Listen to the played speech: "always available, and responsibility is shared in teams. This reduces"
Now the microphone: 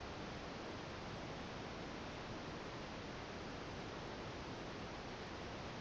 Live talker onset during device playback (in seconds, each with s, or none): none